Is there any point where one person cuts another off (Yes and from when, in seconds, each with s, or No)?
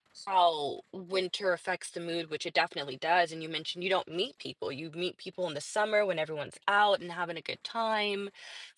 No